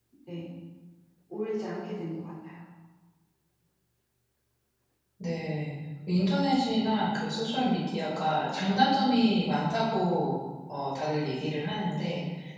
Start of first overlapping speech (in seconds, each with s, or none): none